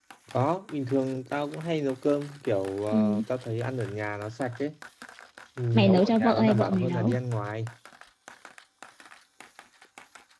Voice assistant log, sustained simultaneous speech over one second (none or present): present